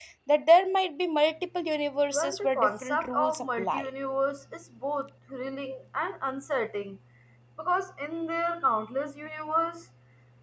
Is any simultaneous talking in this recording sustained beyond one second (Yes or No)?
Yes